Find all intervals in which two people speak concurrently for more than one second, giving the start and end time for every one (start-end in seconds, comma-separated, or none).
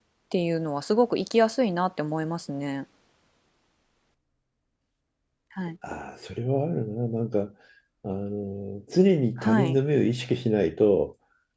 none